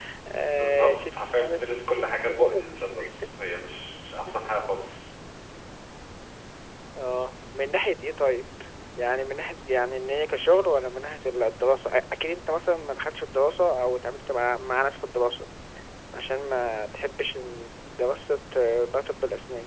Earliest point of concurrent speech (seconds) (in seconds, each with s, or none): 0.6 s